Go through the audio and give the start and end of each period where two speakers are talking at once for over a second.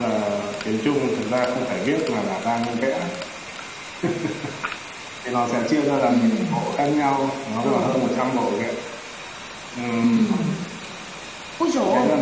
none

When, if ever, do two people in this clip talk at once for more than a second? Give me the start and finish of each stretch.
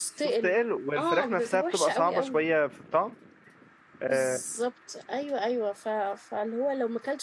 1.0-2.4

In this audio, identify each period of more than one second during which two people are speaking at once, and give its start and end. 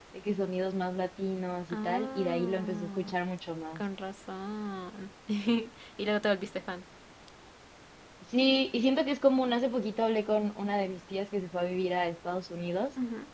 1.7-3.1

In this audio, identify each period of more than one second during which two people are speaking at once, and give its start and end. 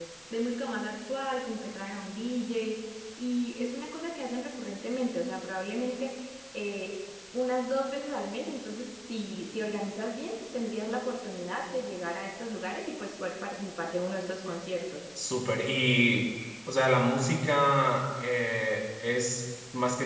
none

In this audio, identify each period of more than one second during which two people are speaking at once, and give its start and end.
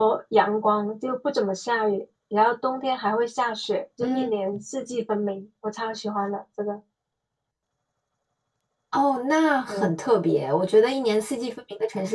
none

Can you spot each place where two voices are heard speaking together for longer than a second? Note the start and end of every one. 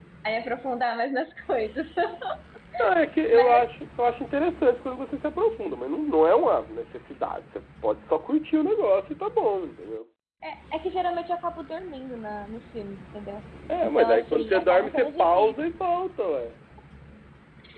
13.8-15.5

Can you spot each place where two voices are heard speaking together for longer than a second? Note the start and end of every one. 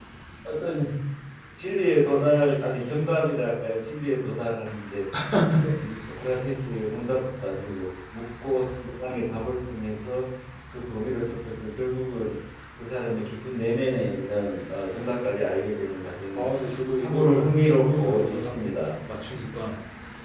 17.0-18.5

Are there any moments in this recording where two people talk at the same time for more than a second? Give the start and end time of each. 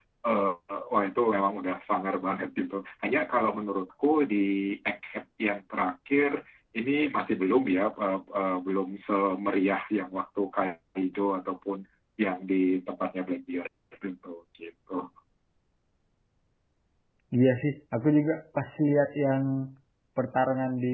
none

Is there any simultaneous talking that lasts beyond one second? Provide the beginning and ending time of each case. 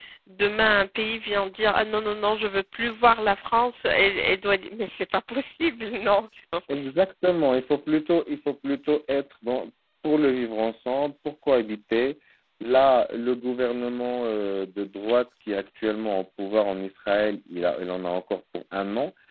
none

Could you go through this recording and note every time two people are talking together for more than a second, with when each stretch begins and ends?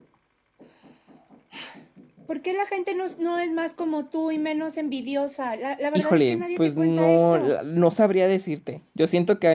6.0-7.5

